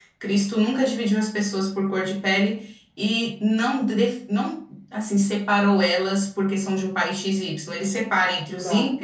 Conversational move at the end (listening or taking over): listening